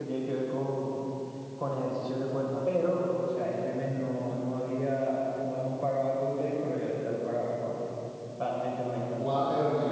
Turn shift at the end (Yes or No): Yes